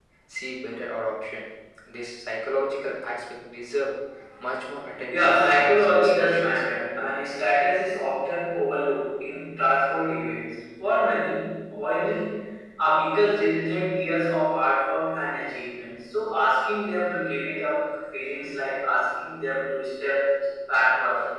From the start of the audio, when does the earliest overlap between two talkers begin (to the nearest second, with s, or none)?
5 s